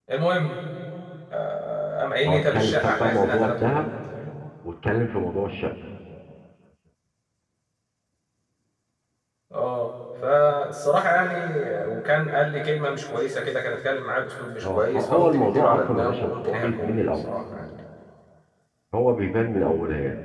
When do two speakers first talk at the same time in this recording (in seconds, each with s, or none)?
2.2 s